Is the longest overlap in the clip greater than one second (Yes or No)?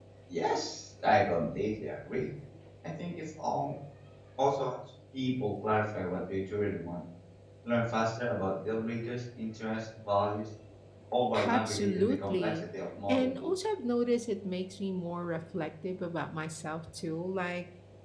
Yes